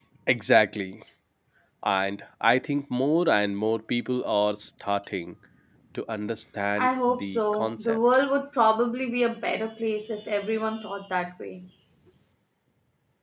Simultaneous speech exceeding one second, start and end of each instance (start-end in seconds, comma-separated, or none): 6.8-8.0